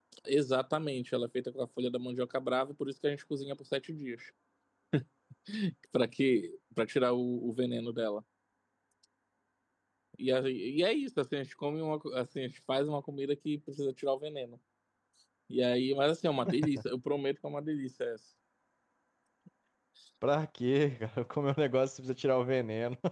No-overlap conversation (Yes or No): Yes